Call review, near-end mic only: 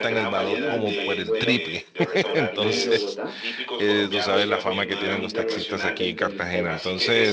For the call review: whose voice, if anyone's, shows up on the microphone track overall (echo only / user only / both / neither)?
both